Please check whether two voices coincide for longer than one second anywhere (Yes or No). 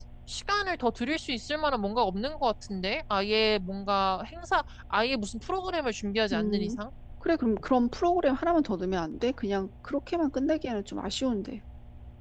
No